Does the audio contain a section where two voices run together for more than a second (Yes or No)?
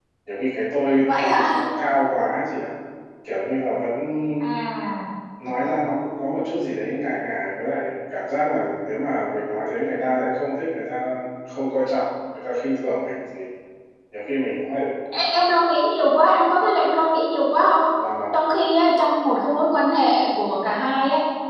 No